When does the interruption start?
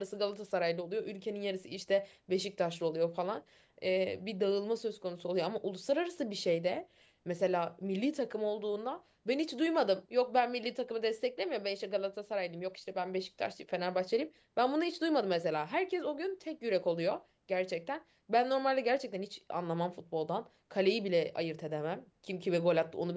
none

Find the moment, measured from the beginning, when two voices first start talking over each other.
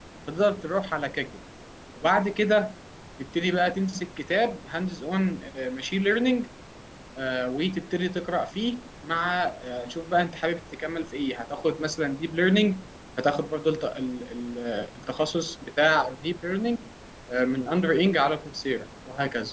none

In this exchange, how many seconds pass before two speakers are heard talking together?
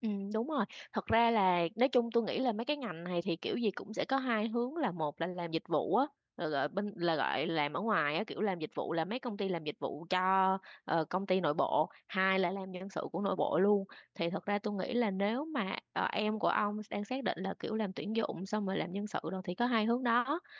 none

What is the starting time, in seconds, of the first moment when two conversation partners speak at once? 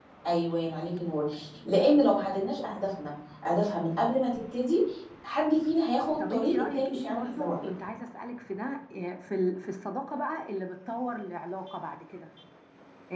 6 s

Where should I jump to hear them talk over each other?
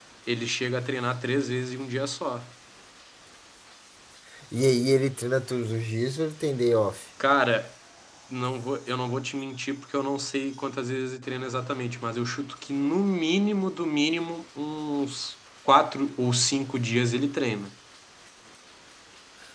none

